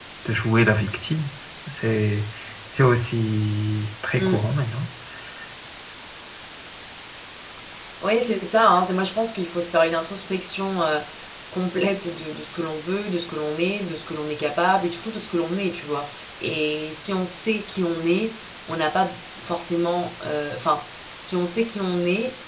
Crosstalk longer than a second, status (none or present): none